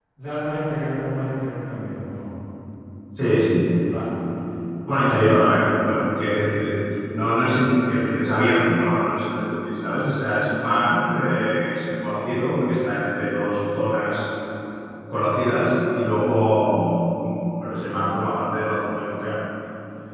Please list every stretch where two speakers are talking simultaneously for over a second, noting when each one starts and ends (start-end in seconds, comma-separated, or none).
none